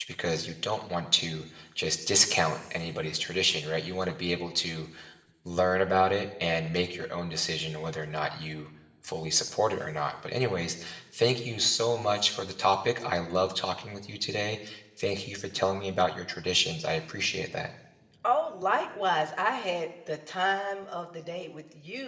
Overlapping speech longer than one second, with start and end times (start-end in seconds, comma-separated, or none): none